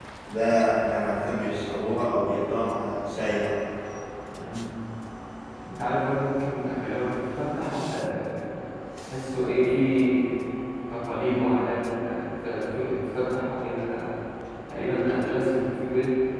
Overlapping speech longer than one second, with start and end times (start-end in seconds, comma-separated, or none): none